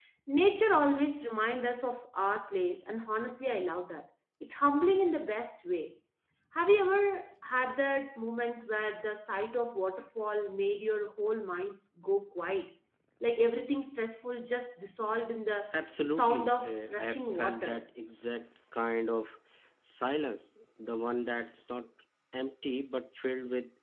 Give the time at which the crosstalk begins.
16 s

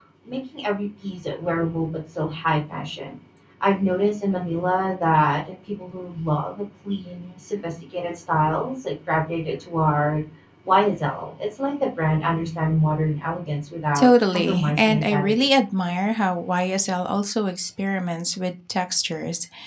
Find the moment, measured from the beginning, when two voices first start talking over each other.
14 s

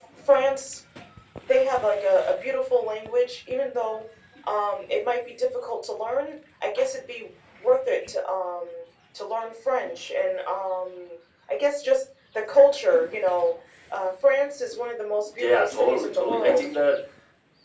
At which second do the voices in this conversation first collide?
15 s

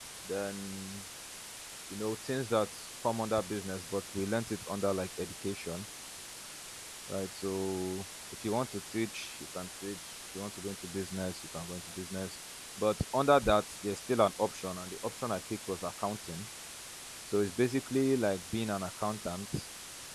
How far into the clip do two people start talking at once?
none

